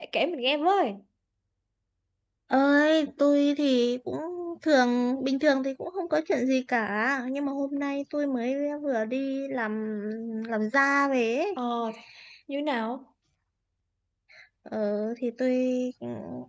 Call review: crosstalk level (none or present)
none